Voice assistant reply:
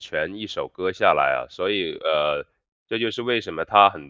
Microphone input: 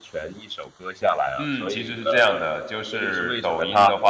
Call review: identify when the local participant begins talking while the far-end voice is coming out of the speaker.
1.4 s

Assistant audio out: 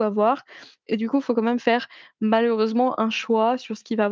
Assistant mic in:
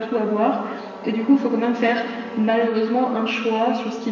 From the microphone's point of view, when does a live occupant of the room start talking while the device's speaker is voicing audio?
none

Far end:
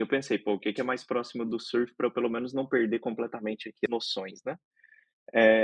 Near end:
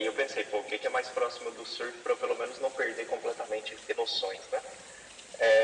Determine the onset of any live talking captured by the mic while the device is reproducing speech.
none

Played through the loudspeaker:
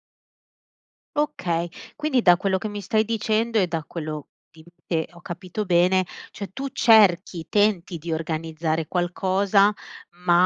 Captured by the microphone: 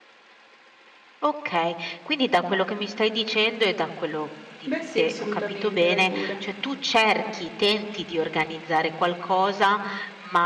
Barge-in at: 4.6 s

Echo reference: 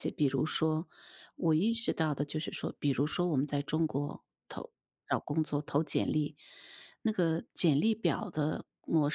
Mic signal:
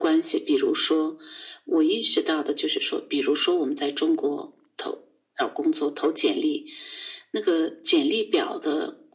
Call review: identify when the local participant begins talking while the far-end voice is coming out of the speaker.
none

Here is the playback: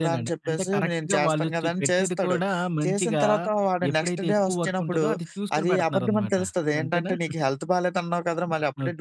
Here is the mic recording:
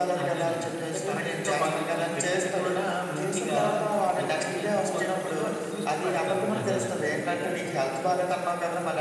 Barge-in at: 6.6 s

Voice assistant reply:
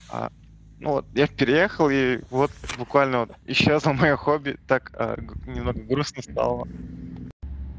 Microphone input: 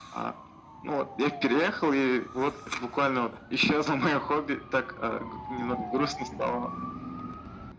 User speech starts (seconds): none

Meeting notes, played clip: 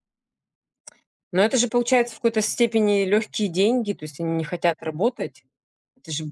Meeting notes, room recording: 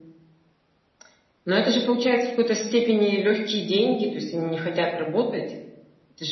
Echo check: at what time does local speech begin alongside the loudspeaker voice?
none

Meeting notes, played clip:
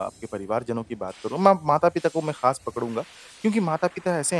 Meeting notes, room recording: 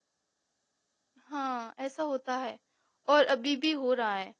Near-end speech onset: 1.2 s

